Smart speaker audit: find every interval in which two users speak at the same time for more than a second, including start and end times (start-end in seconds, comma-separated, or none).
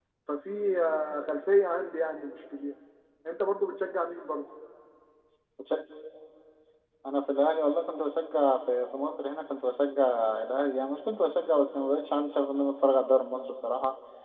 none